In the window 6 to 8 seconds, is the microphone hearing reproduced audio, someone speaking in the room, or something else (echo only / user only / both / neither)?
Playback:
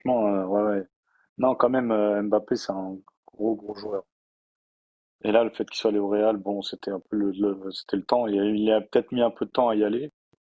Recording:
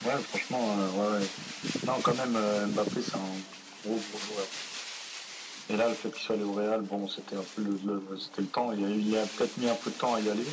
echo only